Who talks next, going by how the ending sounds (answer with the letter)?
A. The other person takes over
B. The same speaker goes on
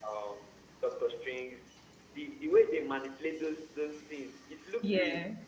B